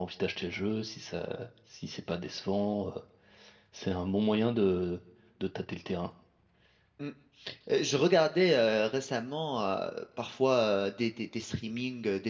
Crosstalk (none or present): none